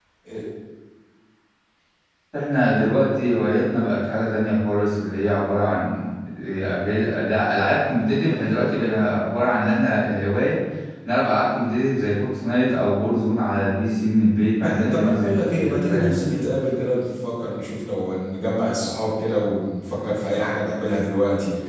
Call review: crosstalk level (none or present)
present